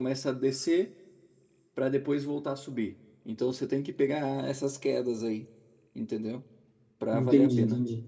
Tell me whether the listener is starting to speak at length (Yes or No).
Yes